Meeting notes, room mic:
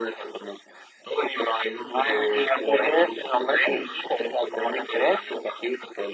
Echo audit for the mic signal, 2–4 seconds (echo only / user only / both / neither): echo only